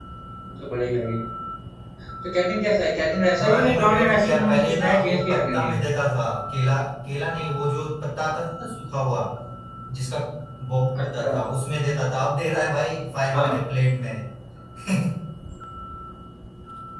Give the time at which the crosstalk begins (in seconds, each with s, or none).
3.4 s